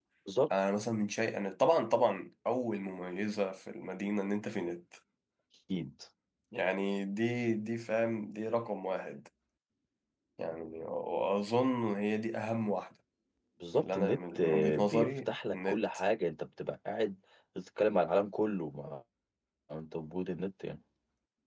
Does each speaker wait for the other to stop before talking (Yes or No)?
No